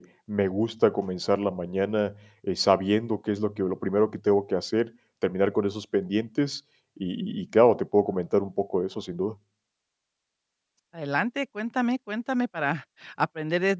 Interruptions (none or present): none